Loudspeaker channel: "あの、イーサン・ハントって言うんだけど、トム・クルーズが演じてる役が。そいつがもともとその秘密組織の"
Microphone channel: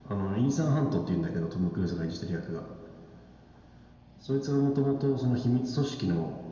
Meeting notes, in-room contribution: none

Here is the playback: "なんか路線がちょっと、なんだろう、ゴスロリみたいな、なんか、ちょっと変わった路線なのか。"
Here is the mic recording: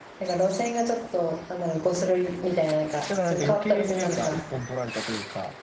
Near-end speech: present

